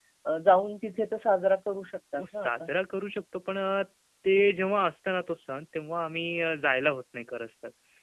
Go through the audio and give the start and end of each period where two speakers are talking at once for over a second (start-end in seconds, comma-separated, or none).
none